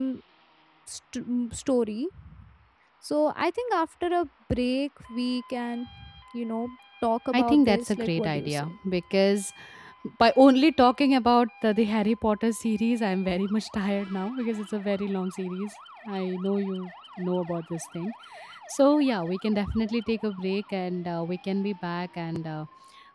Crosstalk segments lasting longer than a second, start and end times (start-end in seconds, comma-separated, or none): 7.3-8.7